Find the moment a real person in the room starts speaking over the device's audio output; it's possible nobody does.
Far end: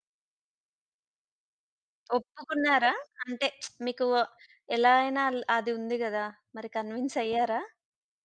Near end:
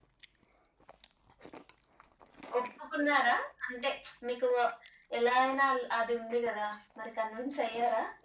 none

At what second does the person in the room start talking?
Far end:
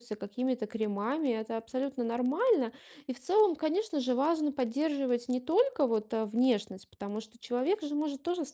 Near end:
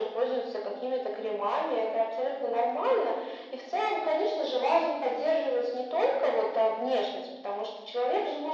none

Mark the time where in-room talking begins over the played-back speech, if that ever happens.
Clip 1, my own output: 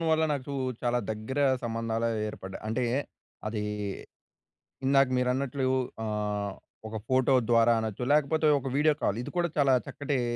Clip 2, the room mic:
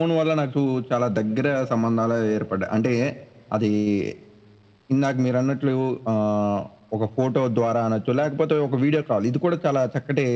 none

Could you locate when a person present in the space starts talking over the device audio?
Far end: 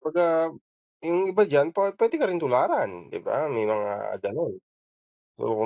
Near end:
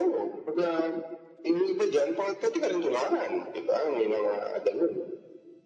none

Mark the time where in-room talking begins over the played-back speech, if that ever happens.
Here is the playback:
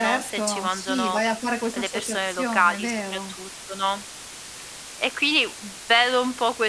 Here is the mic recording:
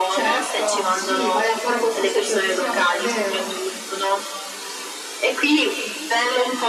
none

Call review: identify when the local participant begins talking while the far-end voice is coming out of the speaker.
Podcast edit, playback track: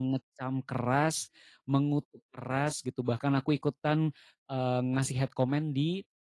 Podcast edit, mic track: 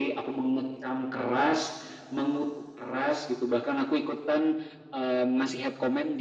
none

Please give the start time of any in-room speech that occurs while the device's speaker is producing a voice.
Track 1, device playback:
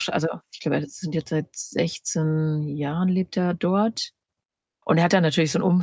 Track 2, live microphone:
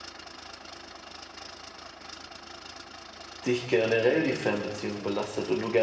3.4 s

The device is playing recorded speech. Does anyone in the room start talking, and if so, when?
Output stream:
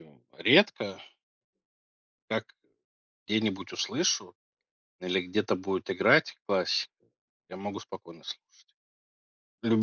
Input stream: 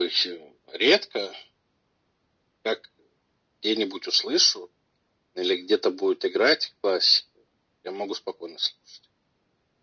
none

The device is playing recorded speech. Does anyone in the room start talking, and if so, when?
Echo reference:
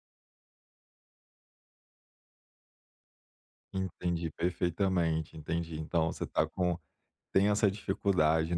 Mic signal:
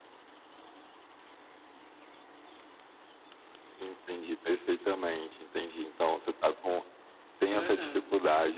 7.5 s

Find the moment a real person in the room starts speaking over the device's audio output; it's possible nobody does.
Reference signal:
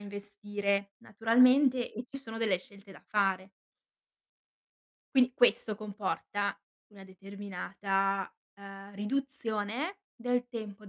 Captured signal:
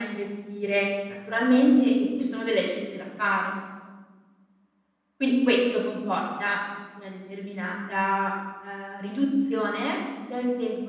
none

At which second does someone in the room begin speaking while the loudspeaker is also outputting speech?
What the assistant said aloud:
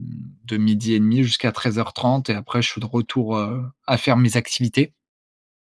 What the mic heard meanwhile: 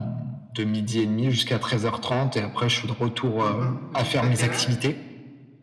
3.4 s

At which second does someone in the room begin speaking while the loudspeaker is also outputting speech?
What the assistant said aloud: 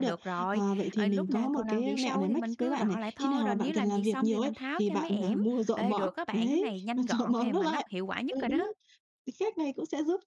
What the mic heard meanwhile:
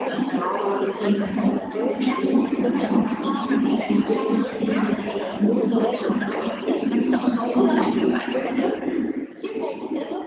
none

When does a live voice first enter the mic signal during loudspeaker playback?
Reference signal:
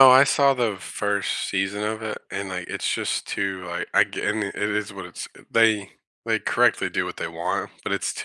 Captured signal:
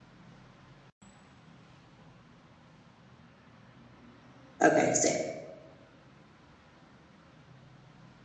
4.6 s

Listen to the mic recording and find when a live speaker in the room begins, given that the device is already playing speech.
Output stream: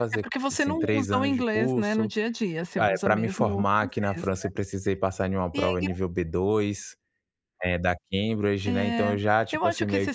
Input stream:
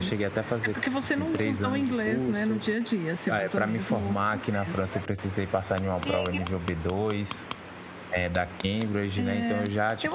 none

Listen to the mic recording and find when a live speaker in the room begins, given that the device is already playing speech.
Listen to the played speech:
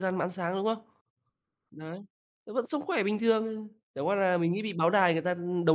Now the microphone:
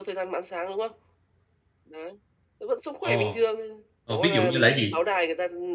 3.0 s

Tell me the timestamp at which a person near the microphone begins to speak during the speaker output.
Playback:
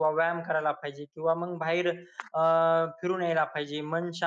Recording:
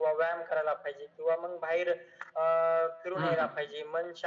3.1 s

